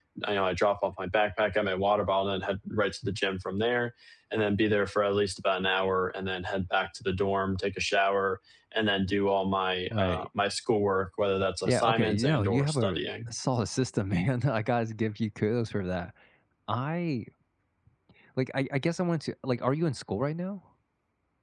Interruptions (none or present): present